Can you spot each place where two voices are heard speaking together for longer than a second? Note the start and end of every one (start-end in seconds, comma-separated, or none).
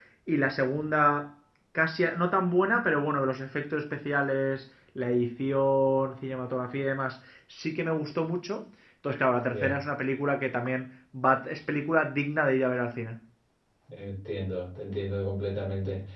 none